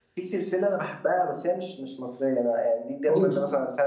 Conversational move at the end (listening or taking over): listening